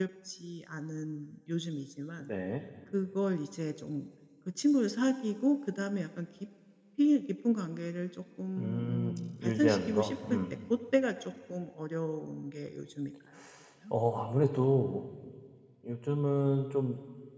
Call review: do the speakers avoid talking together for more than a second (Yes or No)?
No